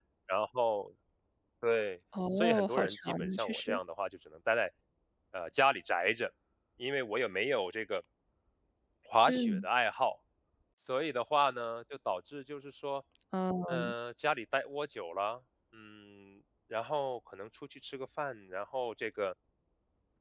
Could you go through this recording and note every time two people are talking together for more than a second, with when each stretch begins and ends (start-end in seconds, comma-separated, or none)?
2.4-3.8